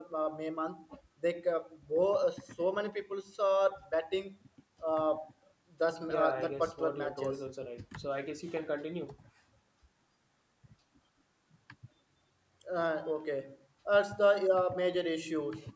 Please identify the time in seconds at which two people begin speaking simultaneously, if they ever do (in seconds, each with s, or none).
6.1 s